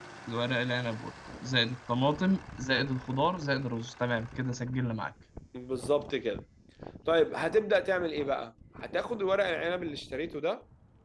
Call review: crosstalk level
none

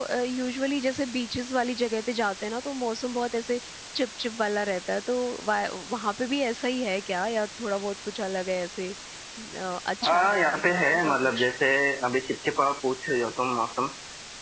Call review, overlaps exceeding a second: present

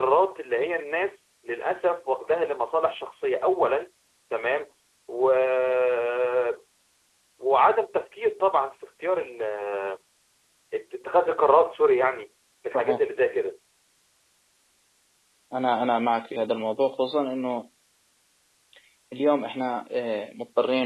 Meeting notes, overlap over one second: none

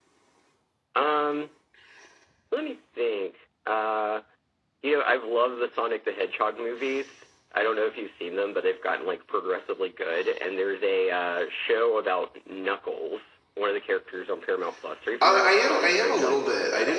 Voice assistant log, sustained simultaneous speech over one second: present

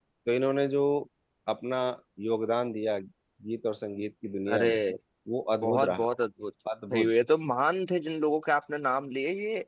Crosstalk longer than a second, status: none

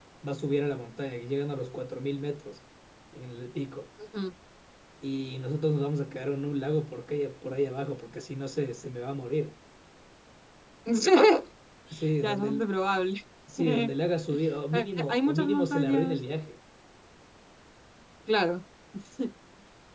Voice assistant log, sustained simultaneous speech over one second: present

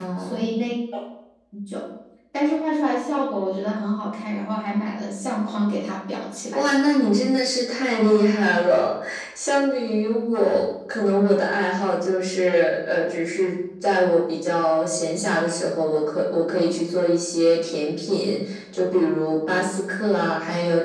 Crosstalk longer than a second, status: none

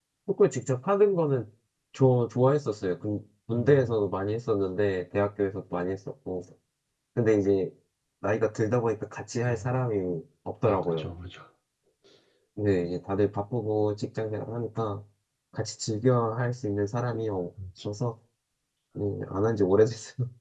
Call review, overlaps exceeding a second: none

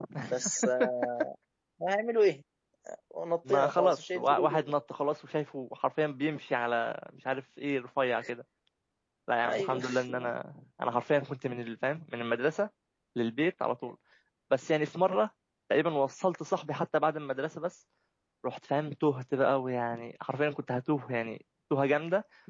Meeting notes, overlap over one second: present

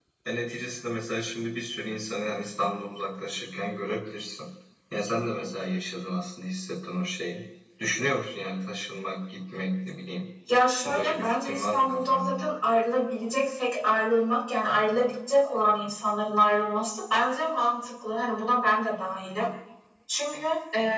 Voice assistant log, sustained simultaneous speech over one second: present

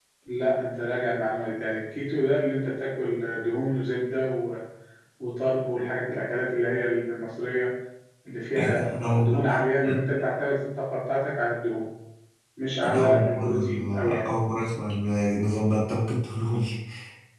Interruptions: present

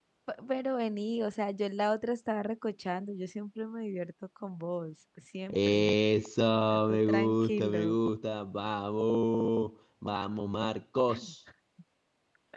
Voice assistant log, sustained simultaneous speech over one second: present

